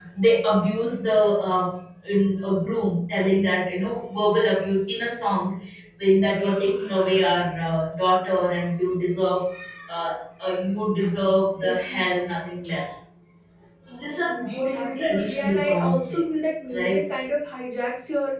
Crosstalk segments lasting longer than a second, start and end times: 14.3-16.3

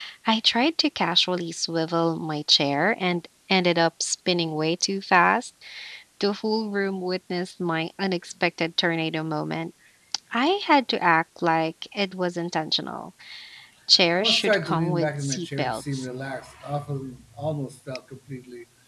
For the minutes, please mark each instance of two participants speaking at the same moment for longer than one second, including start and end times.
14.1-16.1

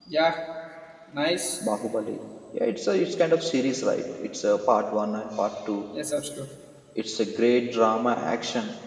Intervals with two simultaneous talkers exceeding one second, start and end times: none

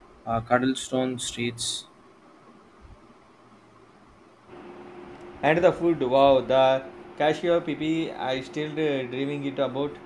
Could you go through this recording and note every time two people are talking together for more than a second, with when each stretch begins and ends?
none

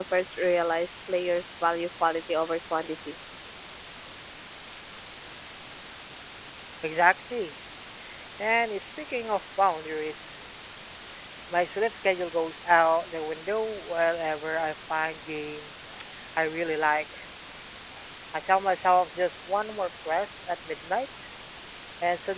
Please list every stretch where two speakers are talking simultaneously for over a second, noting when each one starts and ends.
none

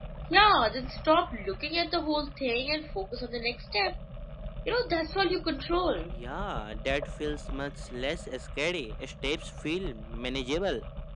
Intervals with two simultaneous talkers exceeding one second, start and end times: none

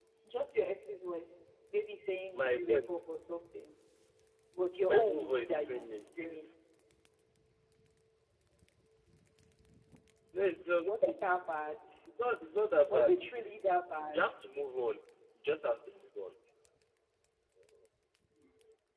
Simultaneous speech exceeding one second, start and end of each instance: 4.9-6.5

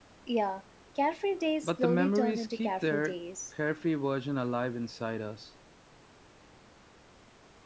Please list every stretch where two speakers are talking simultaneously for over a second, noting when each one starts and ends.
1.6-3.1

